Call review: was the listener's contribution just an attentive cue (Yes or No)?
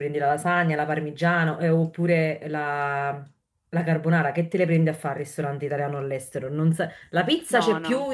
Yes